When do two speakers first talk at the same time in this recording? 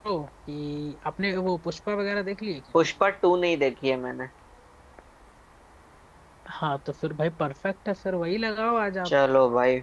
none

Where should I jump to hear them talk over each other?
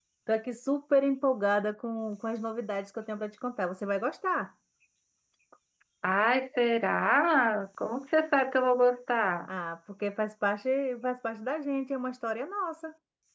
none

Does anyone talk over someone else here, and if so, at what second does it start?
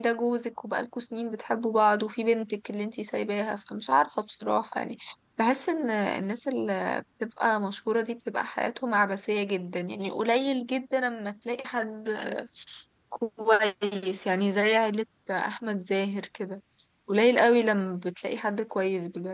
none

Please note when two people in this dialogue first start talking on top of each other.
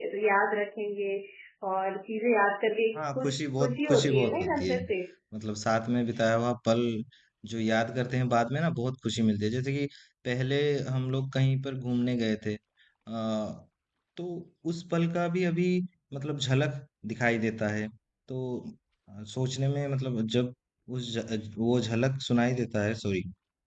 3.0 s

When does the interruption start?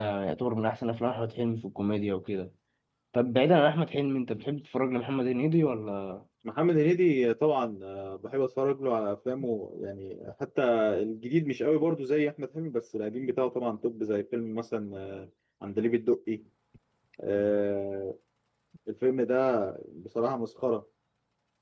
none

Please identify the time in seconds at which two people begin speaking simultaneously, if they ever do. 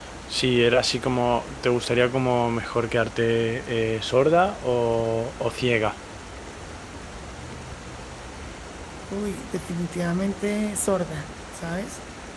none

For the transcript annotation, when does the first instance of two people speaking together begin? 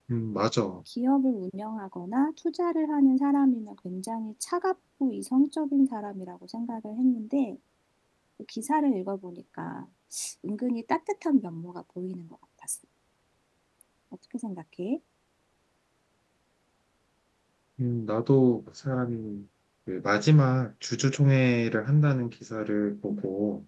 none

